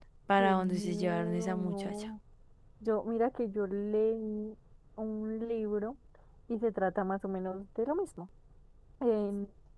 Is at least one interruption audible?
Yes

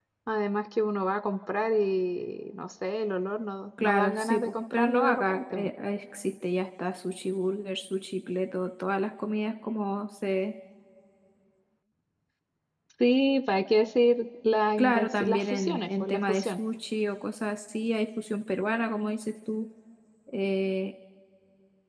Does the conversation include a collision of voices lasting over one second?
Yes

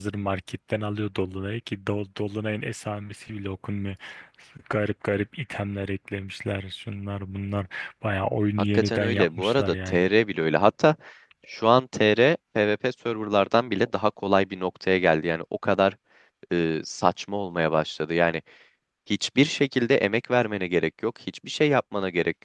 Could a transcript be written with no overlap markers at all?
No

